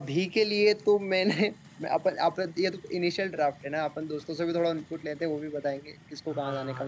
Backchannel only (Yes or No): No